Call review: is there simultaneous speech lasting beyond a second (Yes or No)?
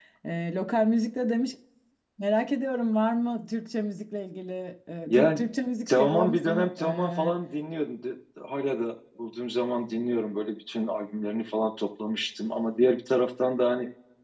Yes